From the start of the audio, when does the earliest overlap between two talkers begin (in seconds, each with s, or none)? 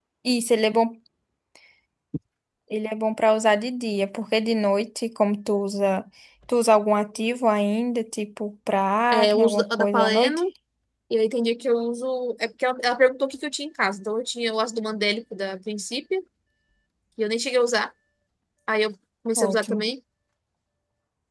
9.1 s